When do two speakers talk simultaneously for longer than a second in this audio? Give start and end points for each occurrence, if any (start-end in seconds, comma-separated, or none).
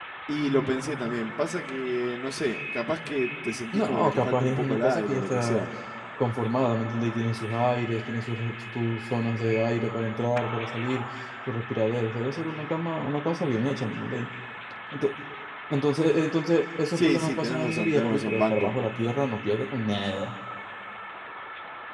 3.7-5.7, 16.9-18.7